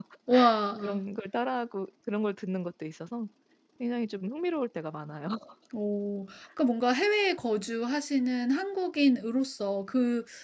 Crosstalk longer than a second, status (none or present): none